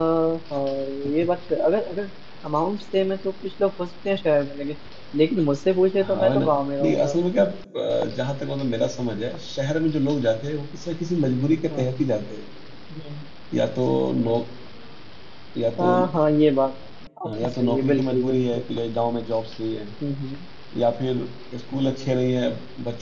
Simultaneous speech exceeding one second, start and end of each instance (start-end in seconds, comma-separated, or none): 17.2-18.6